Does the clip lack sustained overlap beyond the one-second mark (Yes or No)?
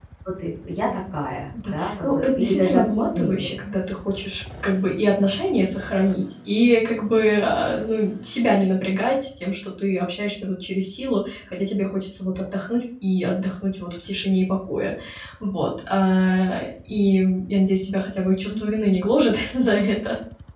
No